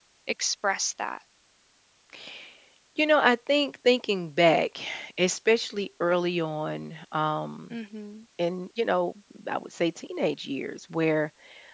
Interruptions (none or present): none